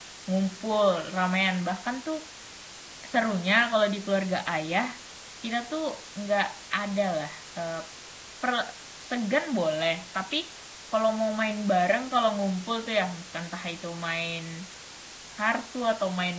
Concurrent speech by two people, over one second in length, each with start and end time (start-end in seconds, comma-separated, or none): none